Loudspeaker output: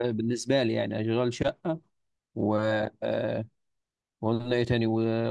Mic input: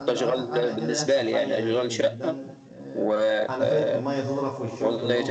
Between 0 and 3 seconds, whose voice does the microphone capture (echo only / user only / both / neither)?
both